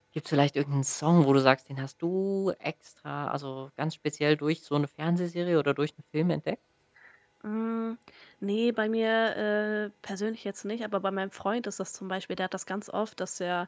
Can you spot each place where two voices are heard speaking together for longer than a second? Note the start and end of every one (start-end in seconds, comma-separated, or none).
none